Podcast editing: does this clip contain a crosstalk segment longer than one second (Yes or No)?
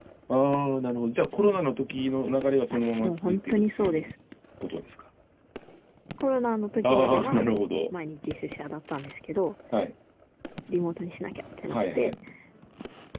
Yes